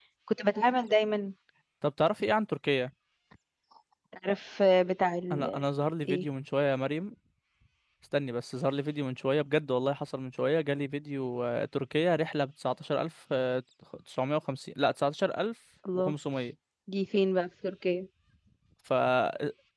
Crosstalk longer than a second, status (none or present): none